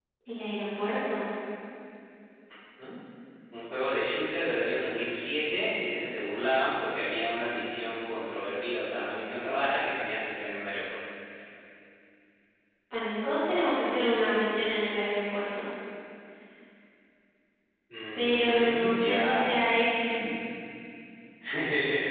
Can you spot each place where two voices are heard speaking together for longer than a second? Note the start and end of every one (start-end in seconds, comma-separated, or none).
18.1-19.5